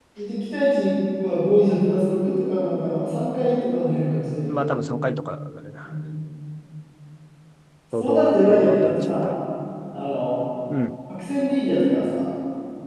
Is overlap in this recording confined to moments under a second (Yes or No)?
No